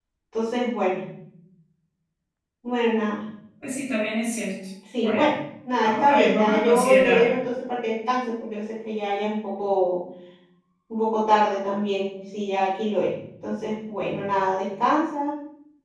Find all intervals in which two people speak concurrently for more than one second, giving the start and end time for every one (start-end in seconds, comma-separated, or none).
5.8-7.4